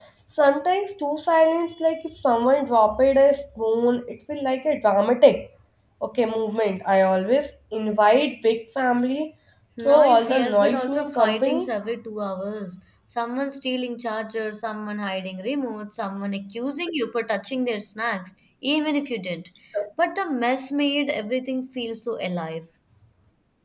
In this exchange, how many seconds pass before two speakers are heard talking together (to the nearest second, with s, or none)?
10 s